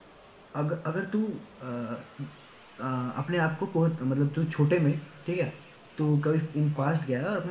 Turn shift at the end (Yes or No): No